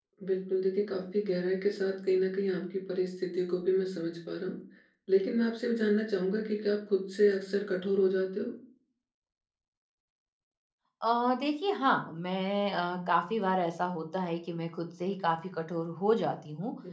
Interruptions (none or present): none